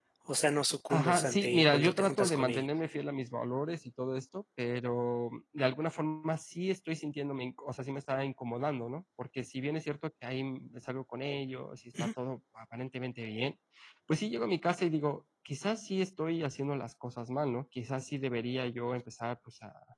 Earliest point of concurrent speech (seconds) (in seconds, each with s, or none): 0.9 s